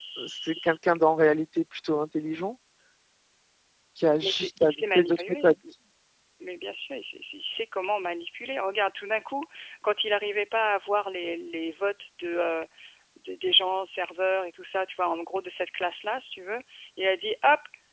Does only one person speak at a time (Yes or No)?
No